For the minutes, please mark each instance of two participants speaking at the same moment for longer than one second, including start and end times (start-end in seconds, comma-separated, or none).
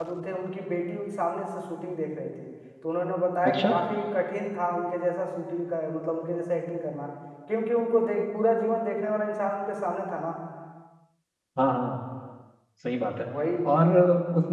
none